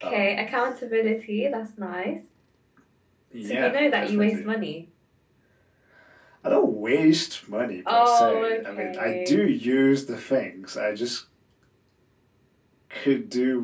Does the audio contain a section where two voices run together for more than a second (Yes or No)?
Yes